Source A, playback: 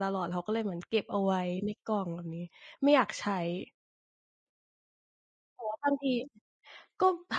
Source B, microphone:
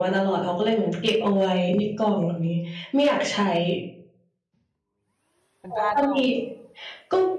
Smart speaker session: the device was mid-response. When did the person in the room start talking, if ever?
5.6 s

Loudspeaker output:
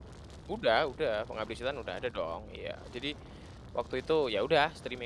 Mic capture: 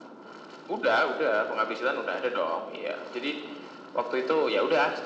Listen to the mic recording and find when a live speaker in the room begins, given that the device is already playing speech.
none

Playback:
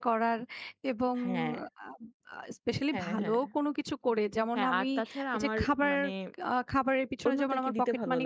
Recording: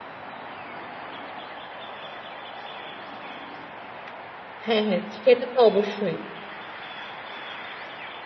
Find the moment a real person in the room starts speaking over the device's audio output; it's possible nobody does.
4.7 s

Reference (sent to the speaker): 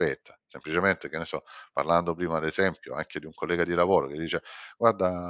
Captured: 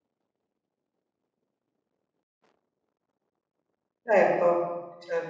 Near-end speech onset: 4.1 s

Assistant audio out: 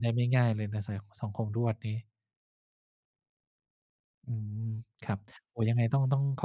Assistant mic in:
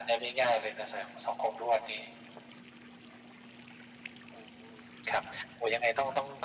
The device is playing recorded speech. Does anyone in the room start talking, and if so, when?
none

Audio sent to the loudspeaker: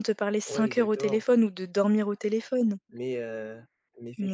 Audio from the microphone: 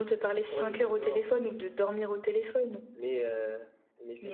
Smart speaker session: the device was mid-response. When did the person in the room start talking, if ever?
none

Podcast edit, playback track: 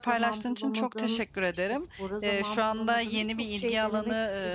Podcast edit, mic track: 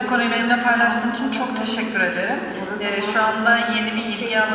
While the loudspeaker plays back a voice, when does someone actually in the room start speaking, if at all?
none

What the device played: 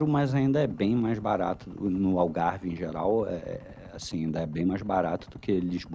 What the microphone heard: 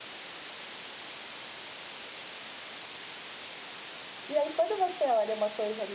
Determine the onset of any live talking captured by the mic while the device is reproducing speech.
4.3 s

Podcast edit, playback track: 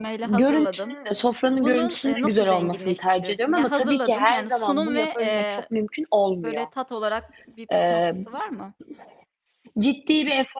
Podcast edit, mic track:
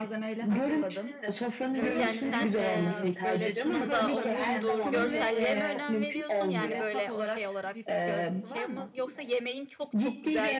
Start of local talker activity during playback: 1.7 s

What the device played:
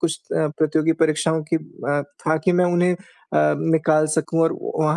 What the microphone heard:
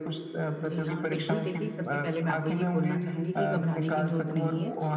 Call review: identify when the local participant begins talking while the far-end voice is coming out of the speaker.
0.6 s

